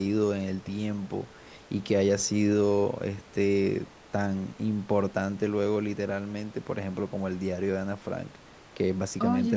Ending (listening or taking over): listening